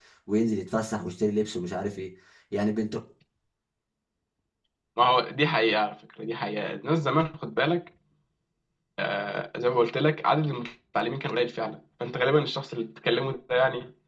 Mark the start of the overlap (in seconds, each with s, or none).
none